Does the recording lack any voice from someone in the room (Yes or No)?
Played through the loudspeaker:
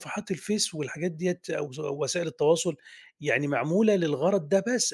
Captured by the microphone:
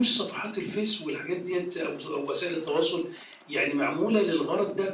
Yes